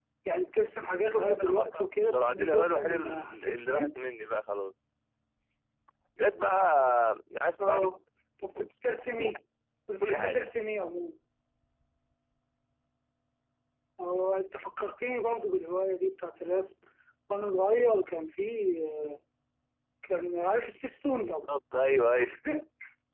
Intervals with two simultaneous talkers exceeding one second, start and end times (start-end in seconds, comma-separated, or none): 1.0-3.9